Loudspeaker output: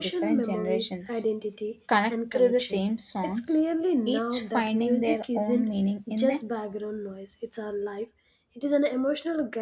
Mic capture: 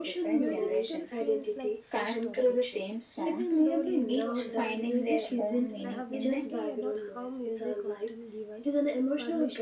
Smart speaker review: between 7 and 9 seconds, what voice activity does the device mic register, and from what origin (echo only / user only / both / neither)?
both